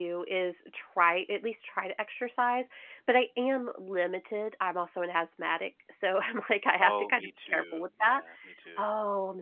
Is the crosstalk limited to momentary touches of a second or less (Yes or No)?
No